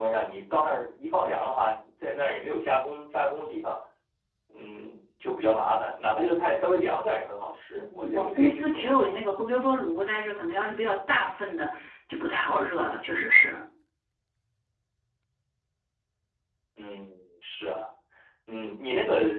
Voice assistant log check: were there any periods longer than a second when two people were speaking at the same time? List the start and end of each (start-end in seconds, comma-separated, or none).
7.7-9.2